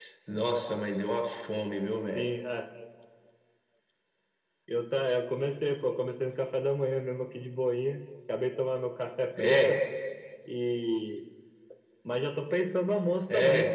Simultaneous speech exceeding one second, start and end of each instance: none

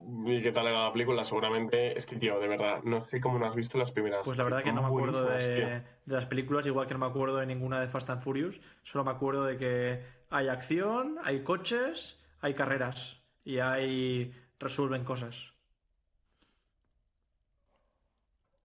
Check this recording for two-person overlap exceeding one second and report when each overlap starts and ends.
4.5-5.7

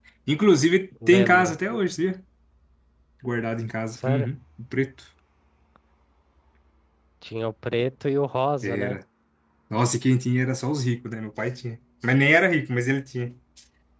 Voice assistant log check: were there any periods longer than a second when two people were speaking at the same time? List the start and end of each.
none

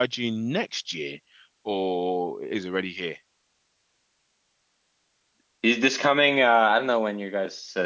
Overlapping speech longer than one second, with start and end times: none

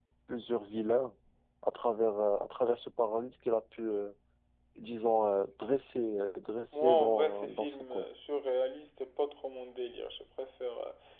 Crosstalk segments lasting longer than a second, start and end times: 6.7-8.0

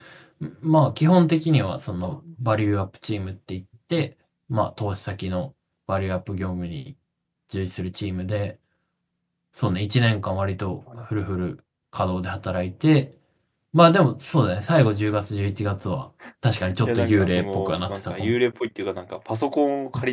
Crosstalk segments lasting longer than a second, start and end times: 16.9-18.4

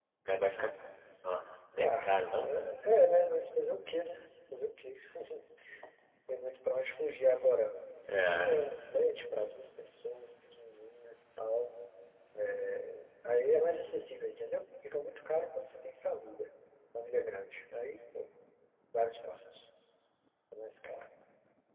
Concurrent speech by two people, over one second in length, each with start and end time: none

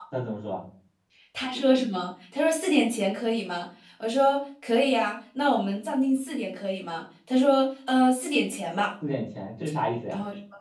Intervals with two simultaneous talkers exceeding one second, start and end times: none

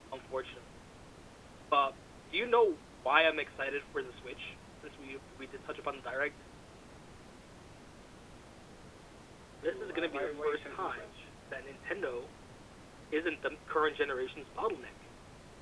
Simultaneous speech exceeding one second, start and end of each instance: 9.7-11.1

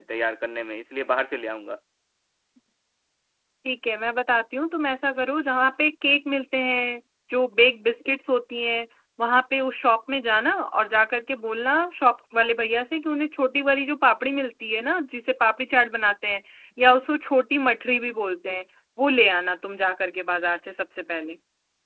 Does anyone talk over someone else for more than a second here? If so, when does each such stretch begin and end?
none

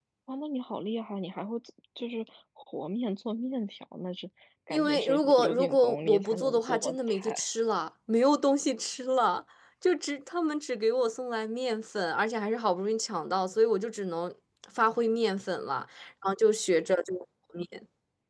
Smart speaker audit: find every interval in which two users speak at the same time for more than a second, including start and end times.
4.7-7.5

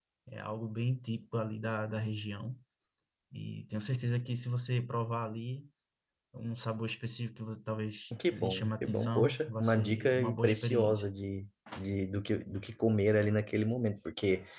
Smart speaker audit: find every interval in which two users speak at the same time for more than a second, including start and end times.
8.3-11.0

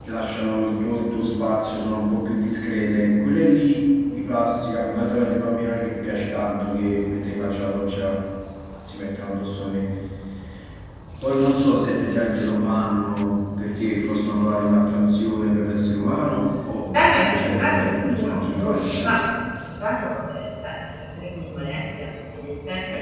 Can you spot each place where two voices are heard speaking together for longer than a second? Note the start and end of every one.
16.9-19.3

